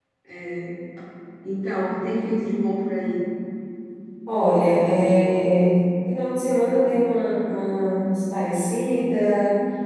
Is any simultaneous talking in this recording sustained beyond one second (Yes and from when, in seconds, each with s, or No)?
No